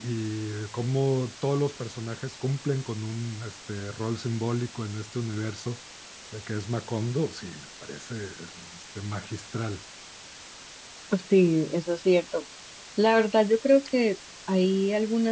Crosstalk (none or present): none